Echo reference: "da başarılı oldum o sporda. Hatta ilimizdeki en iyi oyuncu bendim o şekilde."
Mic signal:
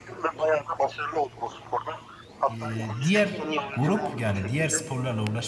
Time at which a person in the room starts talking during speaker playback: 2.5 s

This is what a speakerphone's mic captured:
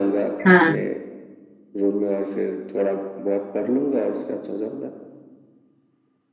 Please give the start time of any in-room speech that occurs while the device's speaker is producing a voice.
0.4 s

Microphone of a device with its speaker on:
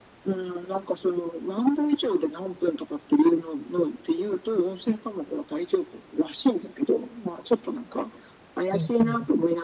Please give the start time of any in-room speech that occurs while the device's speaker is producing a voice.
8.7 s

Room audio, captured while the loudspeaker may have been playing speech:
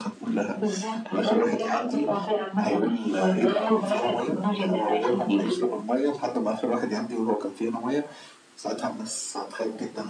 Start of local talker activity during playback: none

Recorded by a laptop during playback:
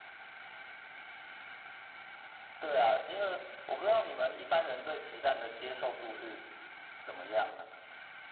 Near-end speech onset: none

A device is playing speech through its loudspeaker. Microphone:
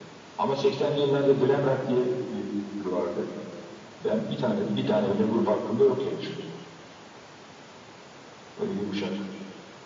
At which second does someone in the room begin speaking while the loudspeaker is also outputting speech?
none

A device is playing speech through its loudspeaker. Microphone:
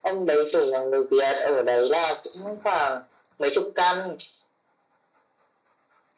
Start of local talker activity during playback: none

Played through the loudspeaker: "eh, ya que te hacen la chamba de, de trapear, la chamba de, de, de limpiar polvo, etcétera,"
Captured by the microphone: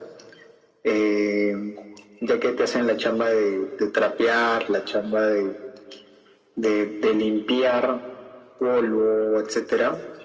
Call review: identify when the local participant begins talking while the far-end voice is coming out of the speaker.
none

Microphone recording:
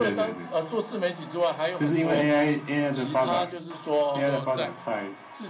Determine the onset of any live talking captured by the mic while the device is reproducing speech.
4.1 s

